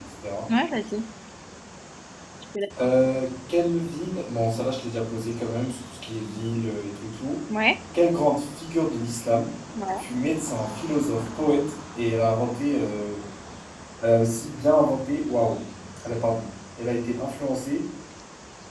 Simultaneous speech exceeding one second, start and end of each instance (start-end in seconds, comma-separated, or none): none